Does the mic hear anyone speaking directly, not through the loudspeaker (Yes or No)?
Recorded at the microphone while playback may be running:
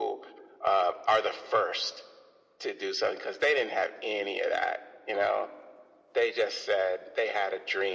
No